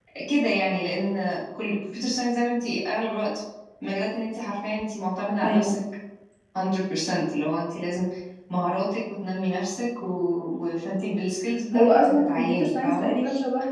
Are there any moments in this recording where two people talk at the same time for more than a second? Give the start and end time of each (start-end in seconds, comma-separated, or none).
11.7-13.1